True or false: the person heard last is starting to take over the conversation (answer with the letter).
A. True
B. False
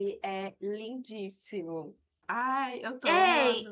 A